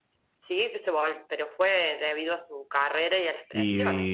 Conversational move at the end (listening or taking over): taking over